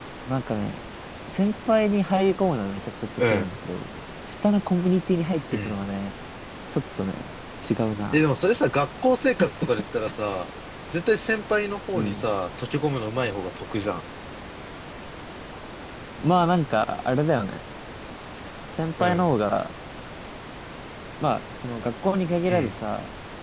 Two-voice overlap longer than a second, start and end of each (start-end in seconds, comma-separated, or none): none